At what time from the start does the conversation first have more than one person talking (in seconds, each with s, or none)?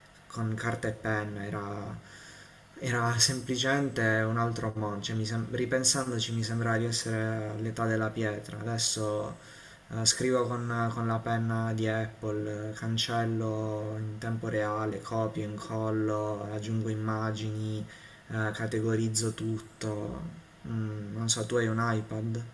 none